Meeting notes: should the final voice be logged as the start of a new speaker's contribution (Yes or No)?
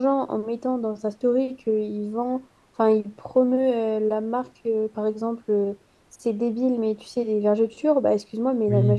No